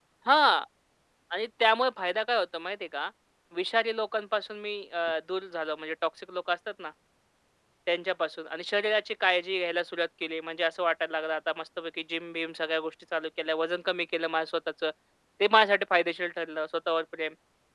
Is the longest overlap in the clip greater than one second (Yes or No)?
No